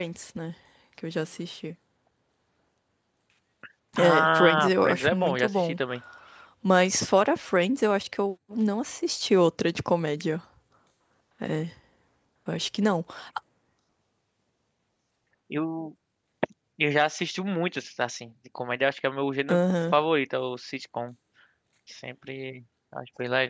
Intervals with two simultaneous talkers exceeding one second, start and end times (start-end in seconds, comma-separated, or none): 4.0-5.8